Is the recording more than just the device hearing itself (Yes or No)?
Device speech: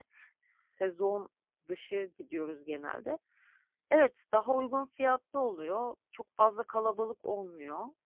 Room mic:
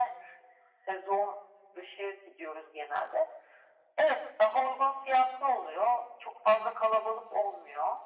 No